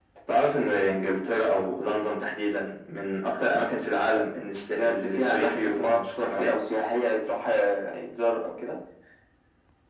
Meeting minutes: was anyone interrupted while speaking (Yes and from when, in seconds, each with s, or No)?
Yes, from 4.7 s